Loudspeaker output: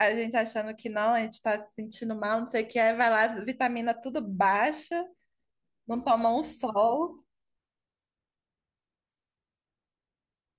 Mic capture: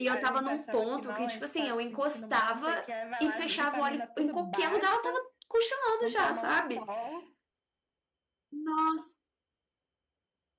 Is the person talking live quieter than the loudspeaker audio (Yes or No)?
No